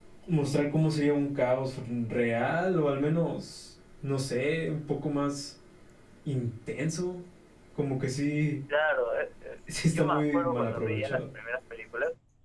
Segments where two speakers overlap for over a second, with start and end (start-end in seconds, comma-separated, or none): 9.9-11.2